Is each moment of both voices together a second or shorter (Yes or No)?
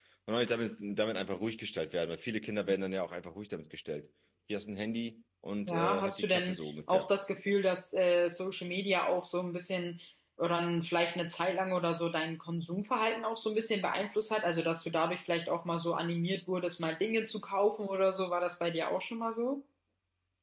No